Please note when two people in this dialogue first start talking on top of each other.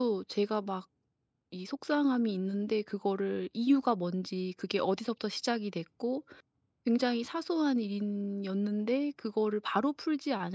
none

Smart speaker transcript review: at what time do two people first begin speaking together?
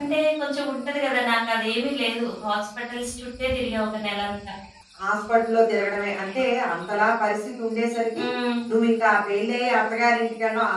none

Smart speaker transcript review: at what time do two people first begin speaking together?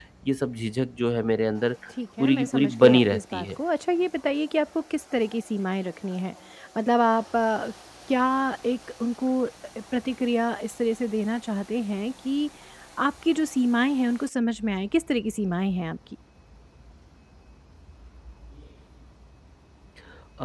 2.2 s

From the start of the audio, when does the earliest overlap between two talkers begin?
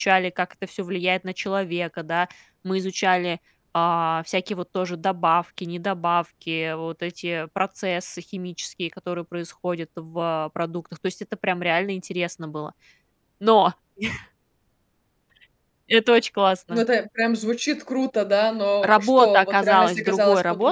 18.8 s

